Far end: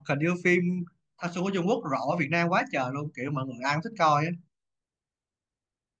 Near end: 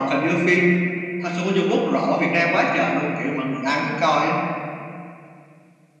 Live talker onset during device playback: none

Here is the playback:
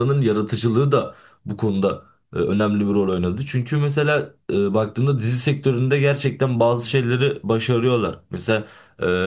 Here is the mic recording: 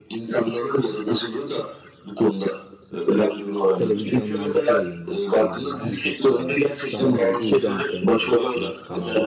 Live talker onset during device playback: 3.8 s

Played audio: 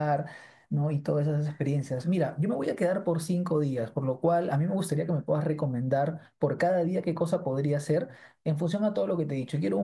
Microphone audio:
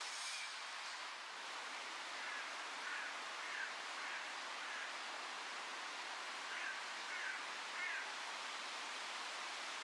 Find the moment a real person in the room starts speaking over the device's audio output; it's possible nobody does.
none

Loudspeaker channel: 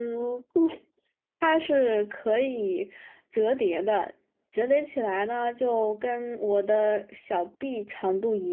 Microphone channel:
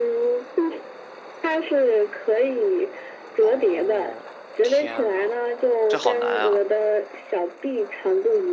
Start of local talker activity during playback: 3.4 s

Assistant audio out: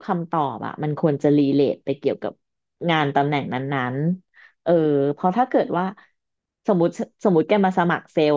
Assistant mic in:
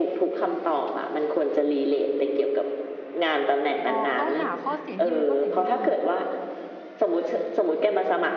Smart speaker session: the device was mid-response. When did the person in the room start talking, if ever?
3.9 s

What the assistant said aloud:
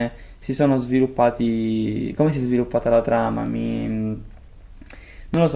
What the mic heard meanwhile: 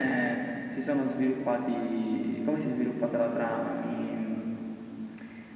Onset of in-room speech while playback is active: none

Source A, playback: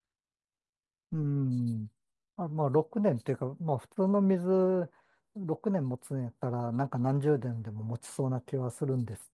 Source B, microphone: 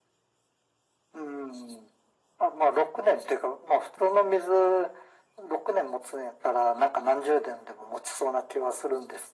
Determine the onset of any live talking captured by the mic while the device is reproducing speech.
none

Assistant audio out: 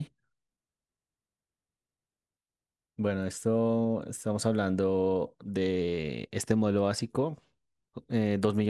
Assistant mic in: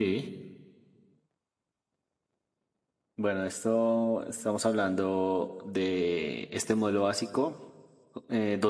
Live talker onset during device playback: none

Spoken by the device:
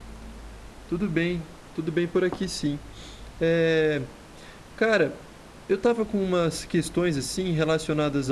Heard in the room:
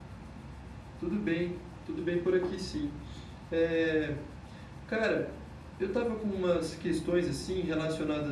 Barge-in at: none

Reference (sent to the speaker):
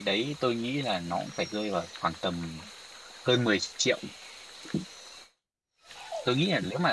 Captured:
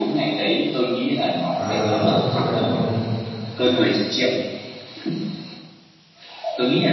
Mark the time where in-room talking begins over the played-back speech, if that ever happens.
1.6 s

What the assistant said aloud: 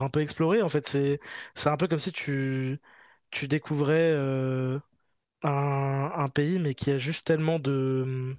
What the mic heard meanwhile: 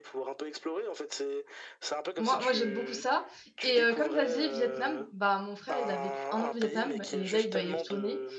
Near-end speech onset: 2.2 s

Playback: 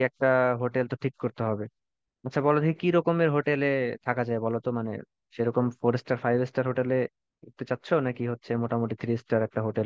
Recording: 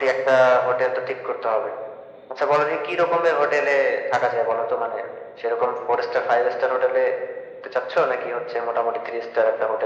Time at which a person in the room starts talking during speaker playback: none

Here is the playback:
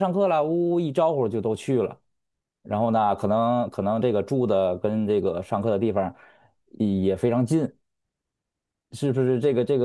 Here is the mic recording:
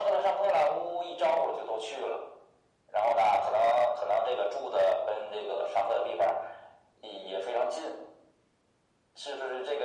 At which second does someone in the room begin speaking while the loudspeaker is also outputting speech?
none

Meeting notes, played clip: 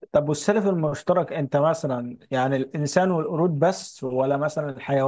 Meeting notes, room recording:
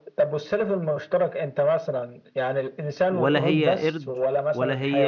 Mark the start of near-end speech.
3.1 s

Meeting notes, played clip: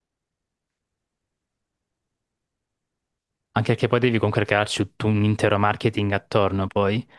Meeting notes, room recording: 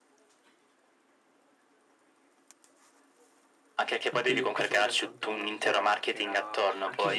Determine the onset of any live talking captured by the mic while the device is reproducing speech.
4.1 s

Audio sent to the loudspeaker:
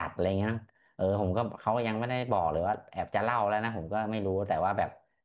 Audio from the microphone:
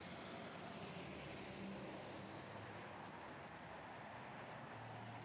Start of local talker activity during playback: none

